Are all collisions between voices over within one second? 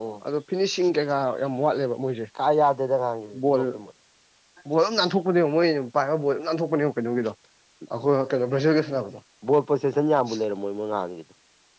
Yes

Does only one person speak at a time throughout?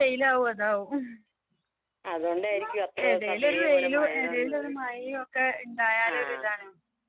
No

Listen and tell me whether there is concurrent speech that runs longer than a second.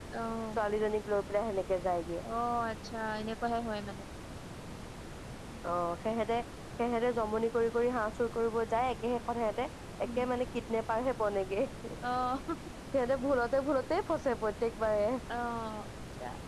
No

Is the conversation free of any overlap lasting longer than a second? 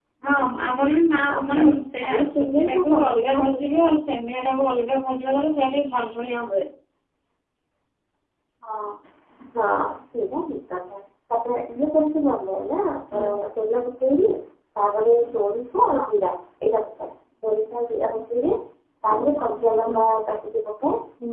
No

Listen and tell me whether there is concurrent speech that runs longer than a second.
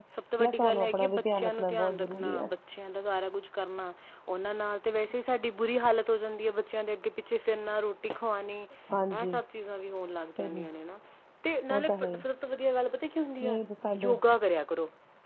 Yes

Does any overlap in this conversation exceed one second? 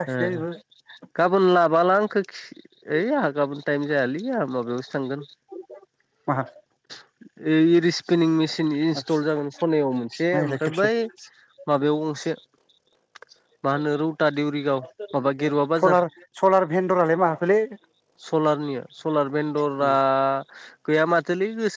No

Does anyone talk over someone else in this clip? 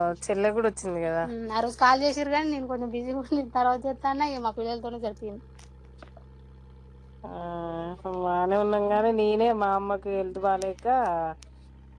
No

